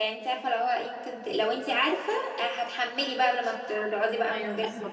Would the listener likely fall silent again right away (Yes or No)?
No